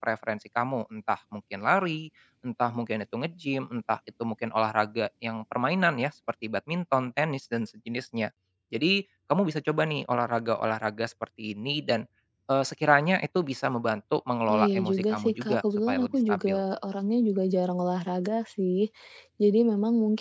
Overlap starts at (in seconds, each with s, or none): 14.5 s